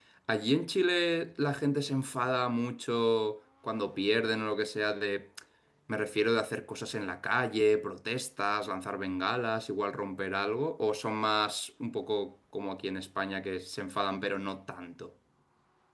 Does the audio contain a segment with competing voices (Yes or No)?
No